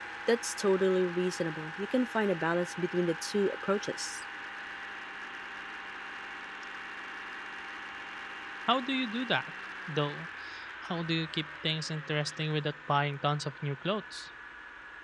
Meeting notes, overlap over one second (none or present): none